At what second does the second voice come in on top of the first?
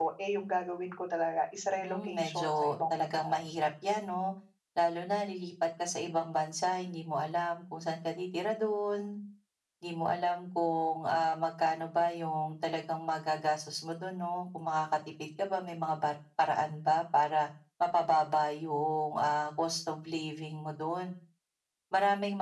2 s

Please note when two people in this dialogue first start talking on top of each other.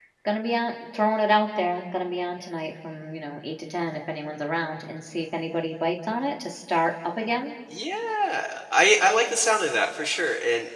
none

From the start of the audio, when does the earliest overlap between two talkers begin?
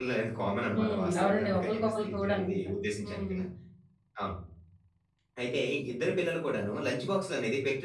1 s

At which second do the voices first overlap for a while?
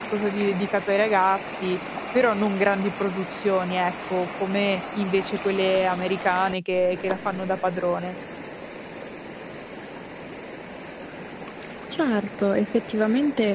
none

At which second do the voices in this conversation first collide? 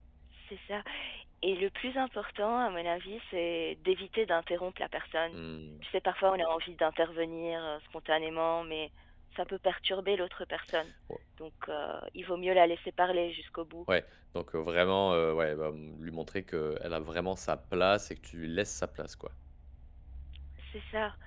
none

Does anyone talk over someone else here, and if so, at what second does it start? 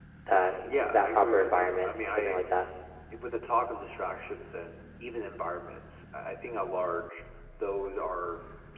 1 s

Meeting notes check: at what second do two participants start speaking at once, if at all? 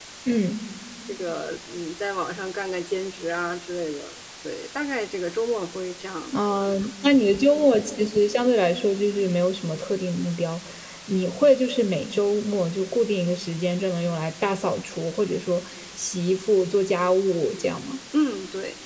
none

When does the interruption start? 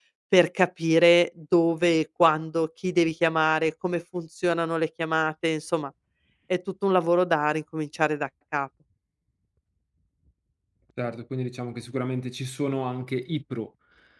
none

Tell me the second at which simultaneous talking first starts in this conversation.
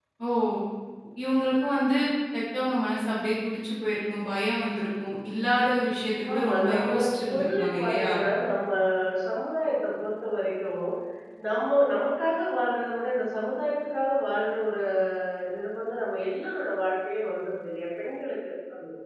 6 s

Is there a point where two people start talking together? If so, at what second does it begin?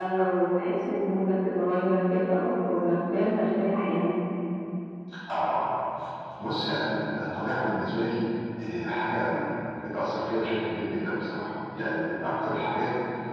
none

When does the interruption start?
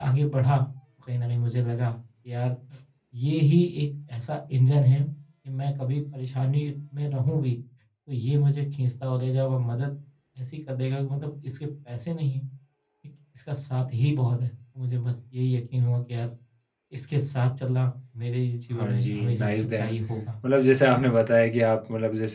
19 s

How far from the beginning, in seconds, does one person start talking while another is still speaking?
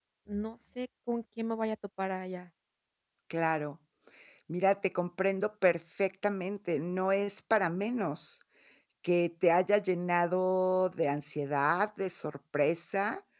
none

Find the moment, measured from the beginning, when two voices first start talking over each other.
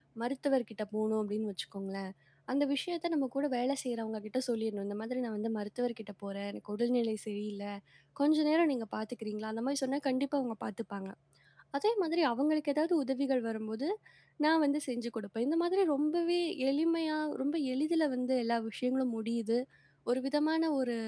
none

